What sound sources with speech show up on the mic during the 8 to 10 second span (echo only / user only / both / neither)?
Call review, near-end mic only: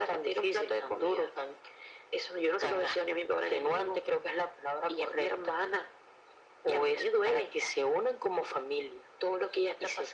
echo only